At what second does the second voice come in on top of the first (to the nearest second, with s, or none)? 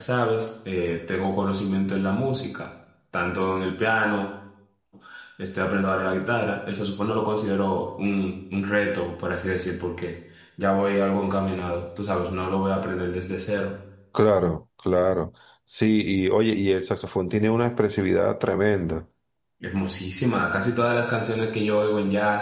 none